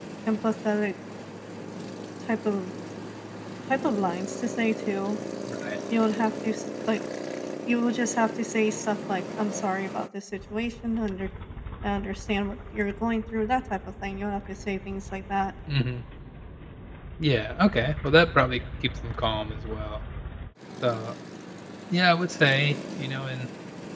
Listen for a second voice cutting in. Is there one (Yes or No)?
No